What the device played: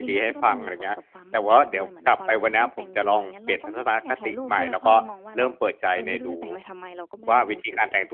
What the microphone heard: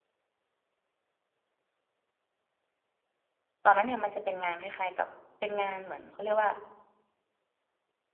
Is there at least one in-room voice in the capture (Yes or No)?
Yes